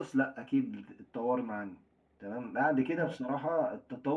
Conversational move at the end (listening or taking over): listening